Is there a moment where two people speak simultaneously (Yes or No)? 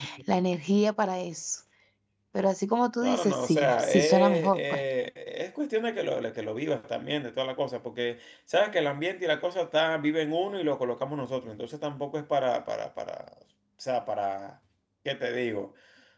Yes